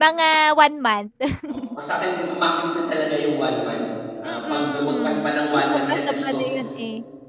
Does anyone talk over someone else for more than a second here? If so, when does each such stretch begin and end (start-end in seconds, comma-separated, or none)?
4.2-6.5